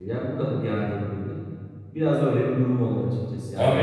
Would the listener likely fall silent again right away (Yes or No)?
No